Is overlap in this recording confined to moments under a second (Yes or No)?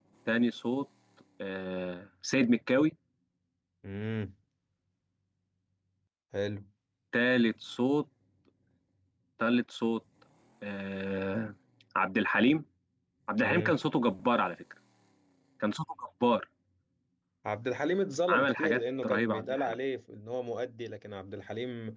No